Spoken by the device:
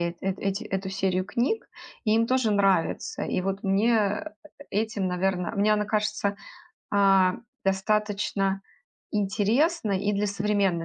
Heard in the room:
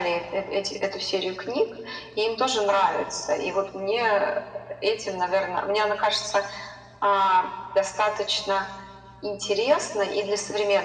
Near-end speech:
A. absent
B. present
A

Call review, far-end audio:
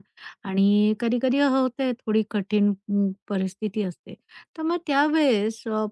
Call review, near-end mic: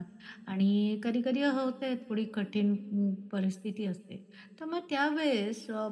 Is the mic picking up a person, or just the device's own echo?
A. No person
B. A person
A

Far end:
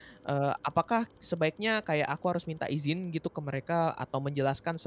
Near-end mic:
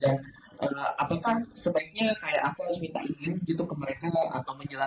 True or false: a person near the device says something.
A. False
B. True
A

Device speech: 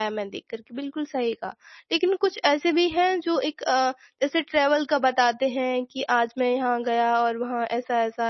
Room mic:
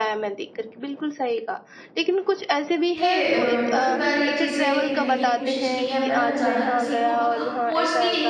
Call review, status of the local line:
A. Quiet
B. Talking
B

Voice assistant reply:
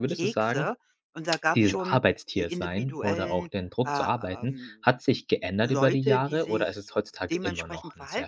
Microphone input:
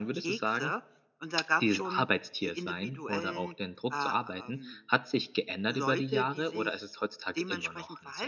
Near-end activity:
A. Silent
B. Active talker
A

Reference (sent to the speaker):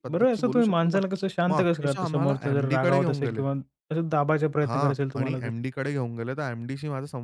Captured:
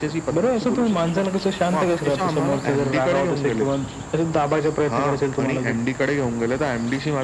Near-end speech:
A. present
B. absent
B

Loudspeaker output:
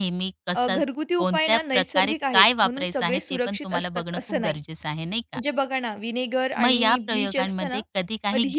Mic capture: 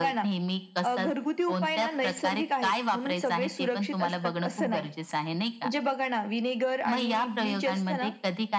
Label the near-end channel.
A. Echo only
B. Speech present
A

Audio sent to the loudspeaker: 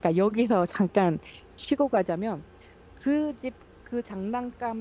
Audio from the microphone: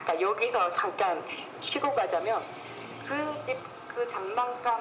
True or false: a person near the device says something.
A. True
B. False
B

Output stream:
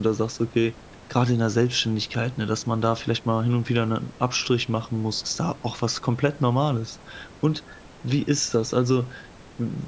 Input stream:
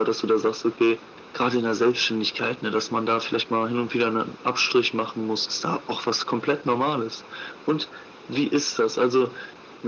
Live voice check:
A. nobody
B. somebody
A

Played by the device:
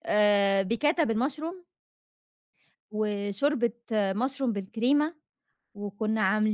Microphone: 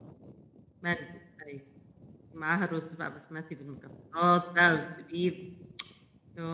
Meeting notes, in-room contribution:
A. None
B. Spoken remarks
B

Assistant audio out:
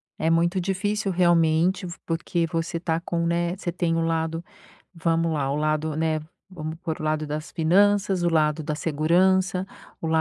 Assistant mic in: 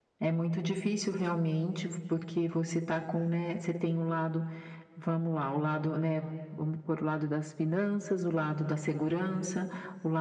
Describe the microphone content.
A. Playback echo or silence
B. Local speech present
A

